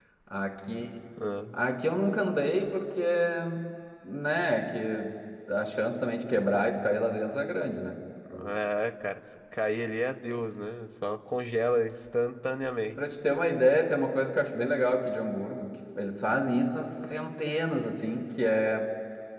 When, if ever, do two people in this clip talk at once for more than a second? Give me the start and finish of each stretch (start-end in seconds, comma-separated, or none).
none